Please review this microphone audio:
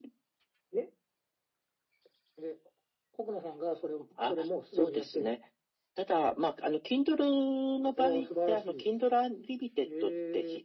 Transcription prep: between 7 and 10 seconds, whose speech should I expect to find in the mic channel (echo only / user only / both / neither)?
echo only